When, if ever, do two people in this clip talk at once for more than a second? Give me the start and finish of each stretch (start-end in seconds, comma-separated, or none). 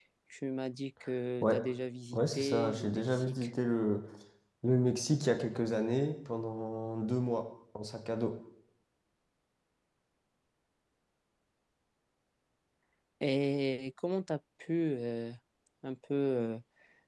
2.1-3.5